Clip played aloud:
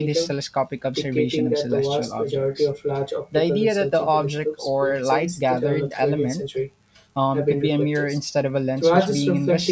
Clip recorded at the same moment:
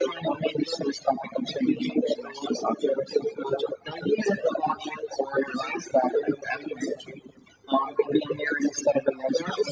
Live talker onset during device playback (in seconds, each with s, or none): none